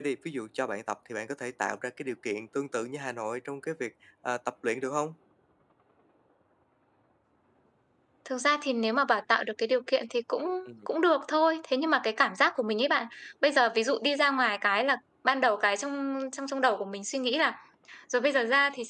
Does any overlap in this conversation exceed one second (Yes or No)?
No